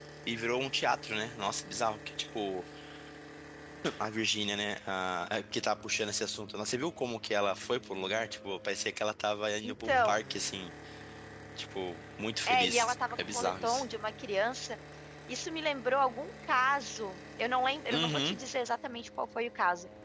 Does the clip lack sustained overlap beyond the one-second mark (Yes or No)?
No